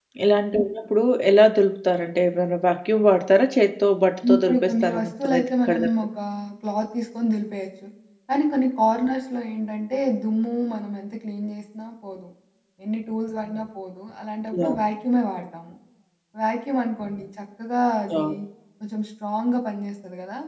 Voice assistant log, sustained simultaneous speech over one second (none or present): present